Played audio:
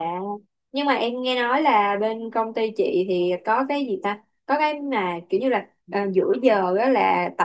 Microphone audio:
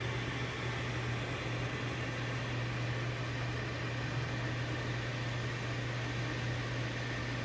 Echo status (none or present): none